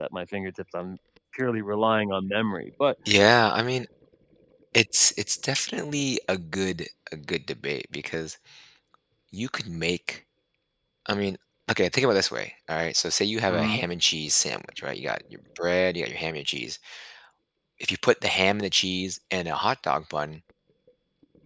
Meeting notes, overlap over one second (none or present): none